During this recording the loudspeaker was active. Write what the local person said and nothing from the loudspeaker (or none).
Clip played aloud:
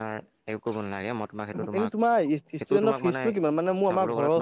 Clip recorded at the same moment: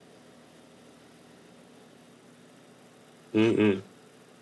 উম উম